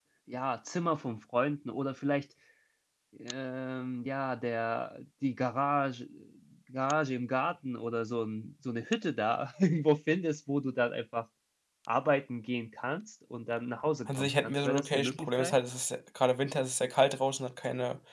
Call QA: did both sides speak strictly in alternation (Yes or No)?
No